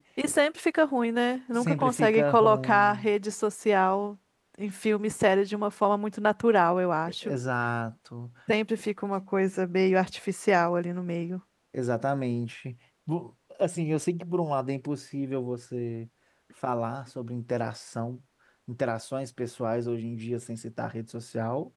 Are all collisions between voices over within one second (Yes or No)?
No